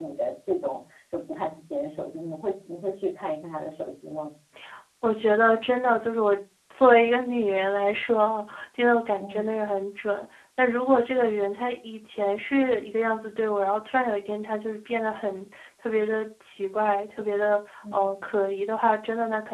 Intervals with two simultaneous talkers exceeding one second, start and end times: none

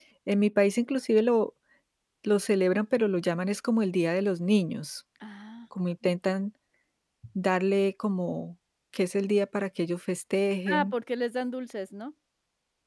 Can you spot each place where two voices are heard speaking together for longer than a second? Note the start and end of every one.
none

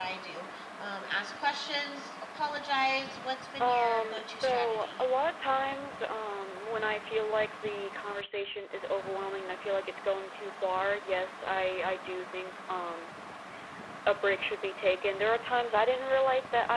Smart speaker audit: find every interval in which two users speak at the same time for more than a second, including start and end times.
3.6-5.0

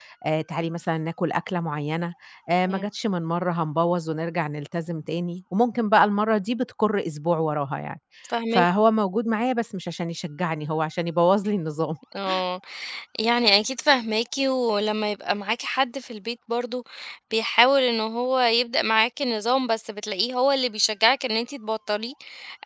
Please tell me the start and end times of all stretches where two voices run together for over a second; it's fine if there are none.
none

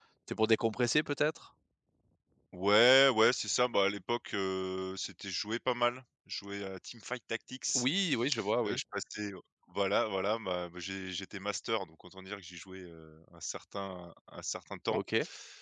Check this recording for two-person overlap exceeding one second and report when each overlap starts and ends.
none

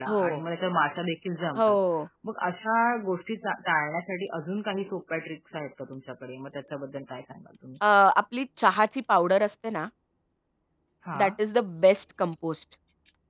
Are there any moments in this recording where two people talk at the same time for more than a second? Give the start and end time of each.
none

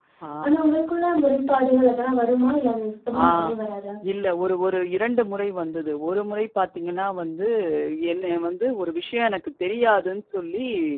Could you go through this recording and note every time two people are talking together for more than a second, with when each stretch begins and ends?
none

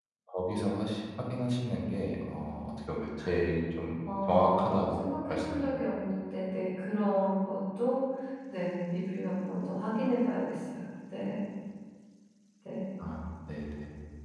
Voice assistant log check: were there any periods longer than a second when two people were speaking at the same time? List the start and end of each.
4.3-5.6

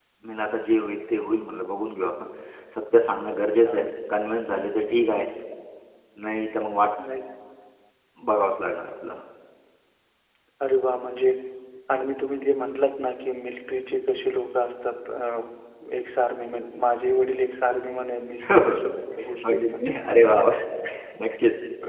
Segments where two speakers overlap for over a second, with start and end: none

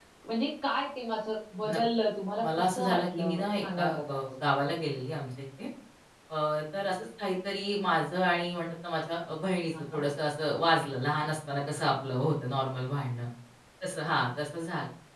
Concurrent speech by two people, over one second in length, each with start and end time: 2.4-4.2

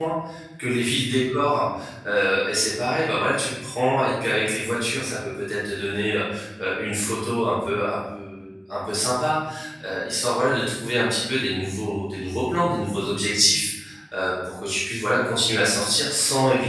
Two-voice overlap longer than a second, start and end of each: none

